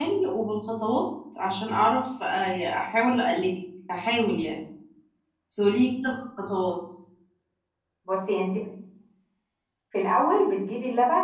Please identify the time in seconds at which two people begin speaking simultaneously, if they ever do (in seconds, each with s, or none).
none